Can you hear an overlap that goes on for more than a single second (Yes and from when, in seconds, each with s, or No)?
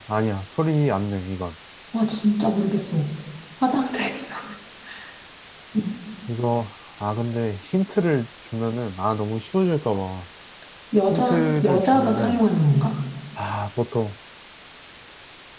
Yes, from 11.1 s